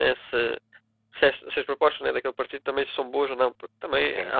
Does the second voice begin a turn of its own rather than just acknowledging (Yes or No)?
No